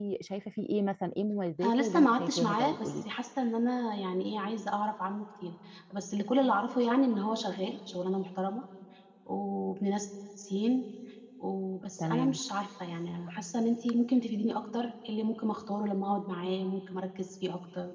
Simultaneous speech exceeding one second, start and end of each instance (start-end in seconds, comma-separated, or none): 1.6-2.9